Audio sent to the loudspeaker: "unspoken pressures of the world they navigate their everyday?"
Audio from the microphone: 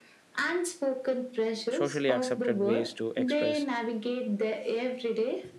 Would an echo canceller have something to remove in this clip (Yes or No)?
Yes